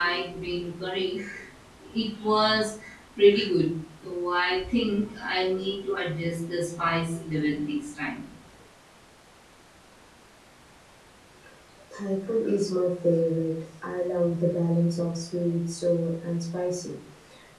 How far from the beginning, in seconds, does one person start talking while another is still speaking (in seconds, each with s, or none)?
none